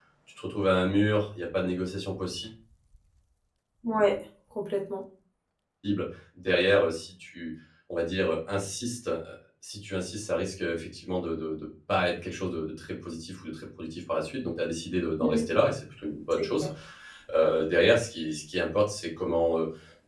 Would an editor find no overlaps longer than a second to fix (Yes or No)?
Yes